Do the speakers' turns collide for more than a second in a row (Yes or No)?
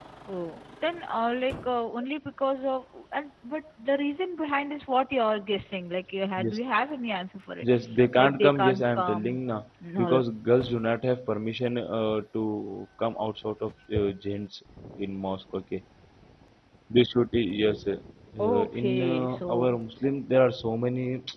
Yes